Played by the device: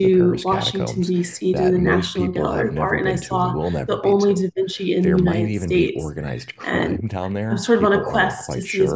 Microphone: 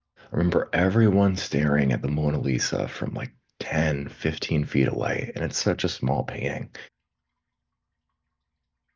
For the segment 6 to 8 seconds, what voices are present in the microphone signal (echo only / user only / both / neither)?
user only